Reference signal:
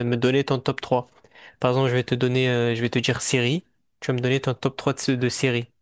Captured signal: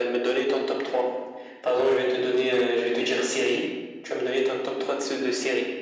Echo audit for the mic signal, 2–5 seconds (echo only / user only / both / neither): echo only